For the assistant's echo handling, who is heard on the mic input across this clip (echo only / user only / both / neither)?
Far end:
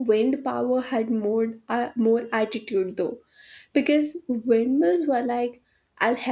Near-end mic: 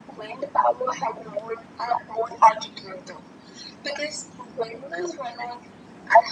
echo only